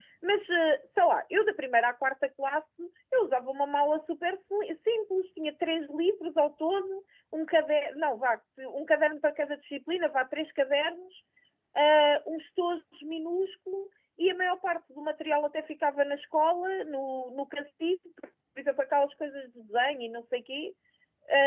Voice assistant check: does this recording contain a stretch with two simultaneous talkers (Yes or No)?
No